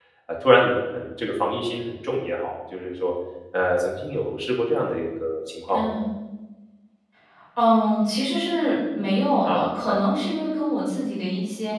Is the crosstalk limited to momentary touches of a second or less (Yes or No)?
Yes